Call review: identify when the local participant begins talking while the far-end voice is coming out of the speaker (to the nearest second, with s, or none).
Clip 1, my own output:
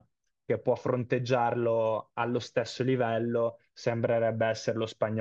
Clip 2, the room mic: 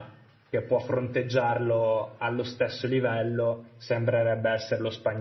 none